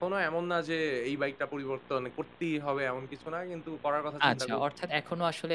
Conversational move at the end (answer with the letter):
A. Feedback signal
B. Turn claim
B